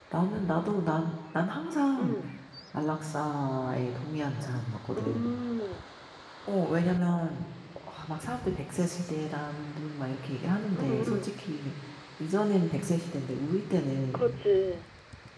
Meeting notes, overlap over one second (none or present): none